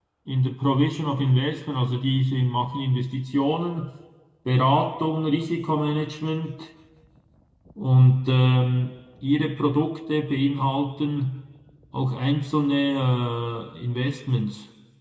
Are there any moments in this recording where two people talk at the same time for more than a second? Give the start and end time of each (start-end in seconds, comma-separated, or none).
none